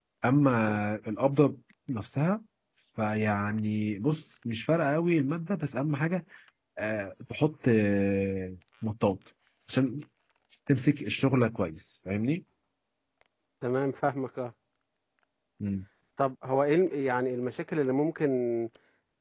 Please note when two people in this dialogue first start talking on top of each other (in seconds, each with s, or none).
none